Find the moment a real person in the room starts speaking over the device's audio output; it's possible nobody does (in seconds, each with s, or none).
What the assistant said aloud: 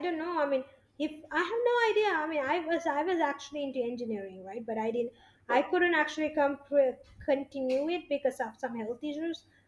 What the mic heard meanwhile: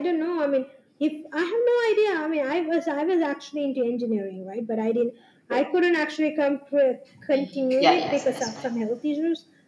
7.1 s